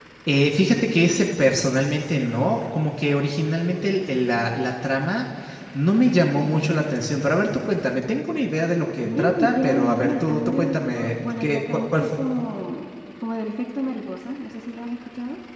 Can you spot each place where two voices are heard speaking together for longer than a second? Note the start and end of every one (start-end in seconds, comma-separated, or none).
9.0-12.2